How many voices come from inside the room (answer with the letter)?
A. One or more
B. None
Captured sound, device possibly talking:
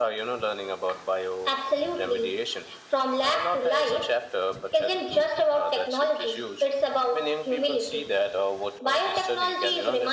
B